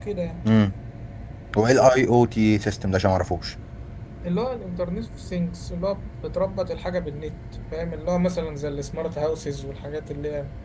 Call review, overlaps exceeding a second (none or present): none